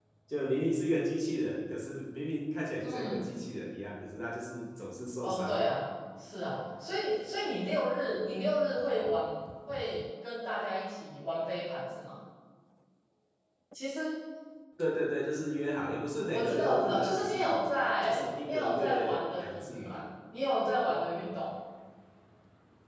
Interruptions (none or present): present